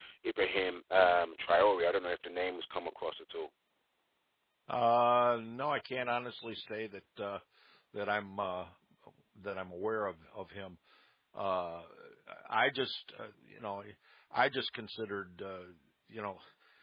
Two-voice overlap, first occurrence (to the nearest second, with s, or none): none